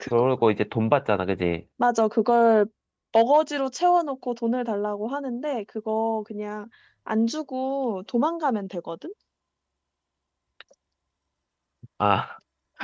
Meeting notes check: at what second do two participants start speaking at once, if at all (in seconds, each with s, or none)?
none